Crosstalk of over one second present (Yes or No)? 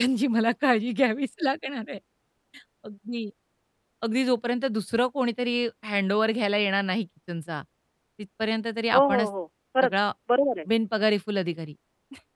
No